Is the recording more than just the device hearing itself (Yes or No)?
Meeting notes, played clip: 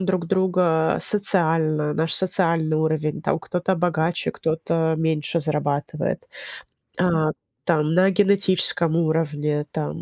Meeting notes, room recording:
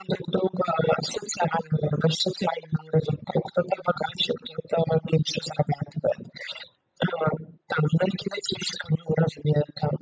No